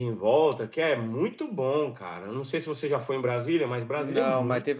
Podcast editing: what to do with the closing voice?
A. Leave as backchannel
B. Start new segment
B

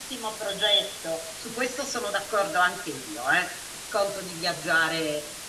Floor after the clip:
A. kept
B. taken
A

